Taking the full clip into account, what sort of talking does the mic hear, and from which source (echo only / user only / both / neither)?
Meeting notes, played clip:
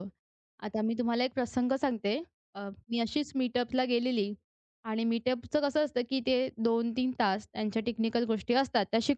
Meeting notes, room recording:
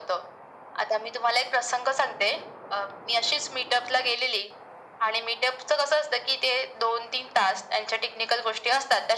echo only